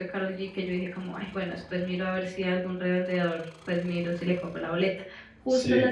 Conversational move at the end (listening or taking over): listening